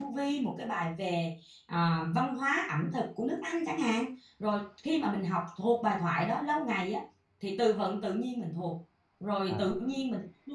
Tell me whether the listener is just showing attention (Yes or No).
Yes